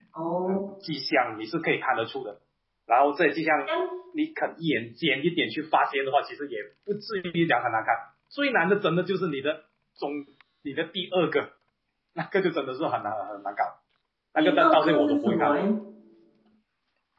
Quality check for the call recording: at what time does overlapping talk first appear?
14.4 s

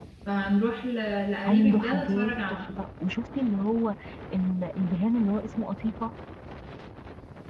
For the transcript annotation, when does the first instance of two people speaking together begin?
1.4 s

